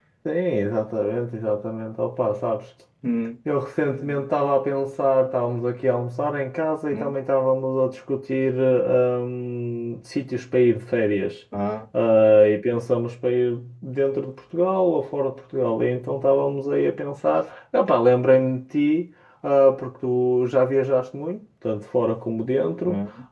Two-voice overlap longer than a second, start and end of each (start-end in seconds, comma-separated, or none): none